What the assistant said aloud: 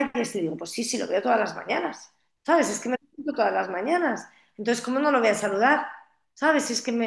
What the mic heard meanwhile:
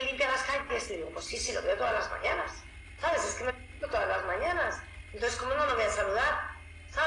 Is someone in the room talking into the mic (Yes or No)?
No